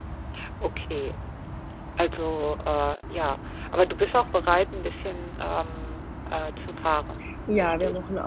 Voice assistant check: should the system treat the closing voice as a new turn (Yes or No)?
Yes